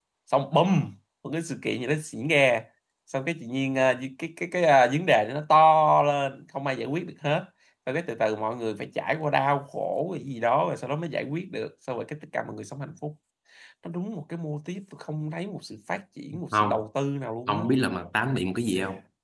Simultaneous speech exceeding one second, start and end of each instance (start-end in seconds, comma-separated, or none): none